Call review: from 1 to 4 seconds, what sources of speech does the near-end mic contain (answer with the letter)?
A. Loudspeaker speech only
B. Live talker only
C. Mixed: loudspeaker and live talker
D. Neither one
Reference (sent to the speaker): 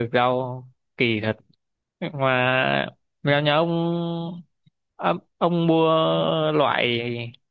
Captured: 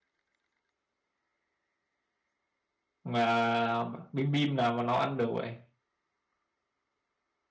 B